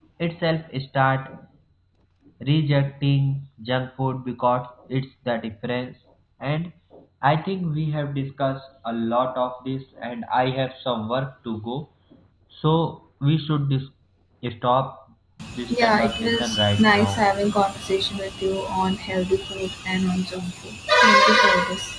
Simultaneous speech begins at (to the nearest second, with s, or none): 16 s